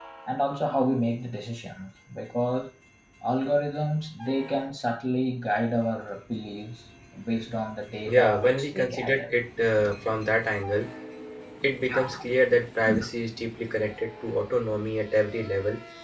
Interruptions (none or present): present